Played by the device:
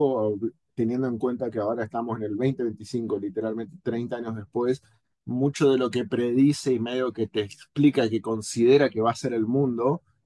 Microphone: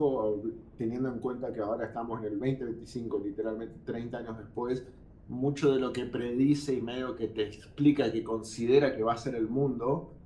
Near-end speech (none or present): none